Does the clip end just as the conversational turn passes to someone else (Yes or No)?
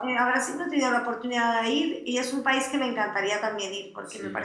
No